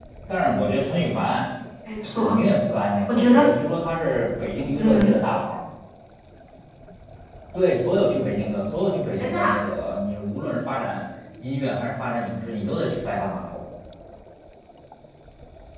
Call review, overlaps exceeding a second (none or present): none